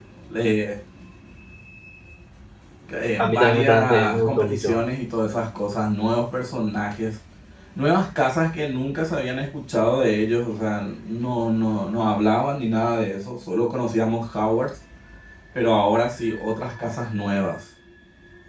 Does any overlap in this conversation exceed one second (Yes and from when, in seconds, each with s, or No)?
Yes, from 3.2 s